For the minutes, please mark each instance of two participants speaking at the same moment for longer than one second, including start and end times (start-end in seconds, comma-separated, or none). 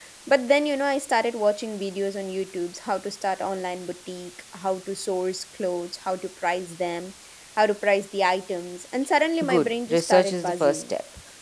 9.4-10.9